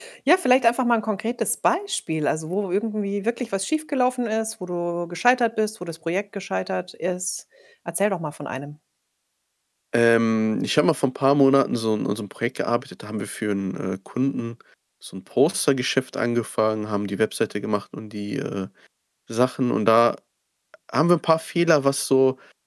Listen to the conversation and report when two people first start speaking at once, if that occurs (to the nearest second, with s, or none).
none